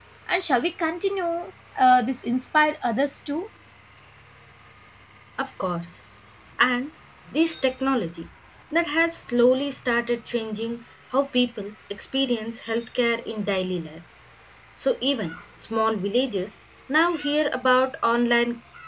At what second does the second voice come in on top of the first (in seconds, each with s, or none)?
none